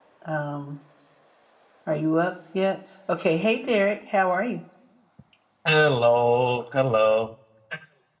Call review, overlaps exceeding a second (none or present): none